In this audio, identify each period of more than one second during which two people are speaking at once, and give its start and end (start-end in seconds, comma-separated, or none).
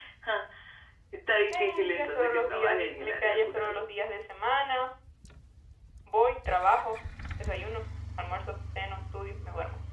1.5-3.8